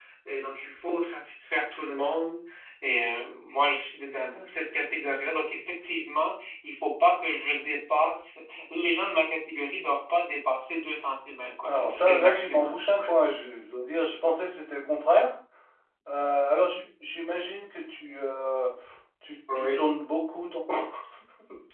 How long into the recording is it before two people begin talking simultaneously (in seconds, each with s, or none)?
11.7 s